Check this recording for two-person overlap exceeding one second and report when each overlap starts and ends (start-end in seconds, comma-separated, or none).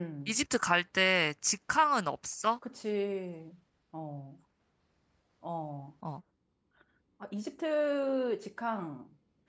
none